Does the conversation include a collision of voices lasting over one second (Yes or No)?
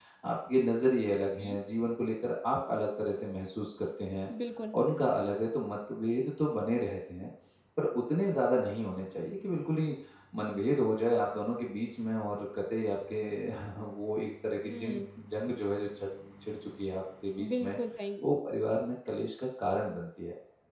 No